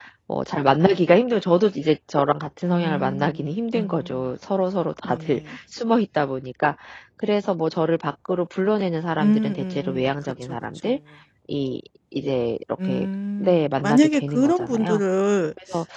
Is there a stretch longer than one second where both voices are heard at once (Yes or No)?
Yes